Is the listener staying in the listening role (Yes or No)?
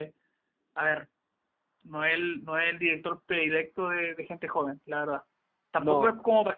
Yes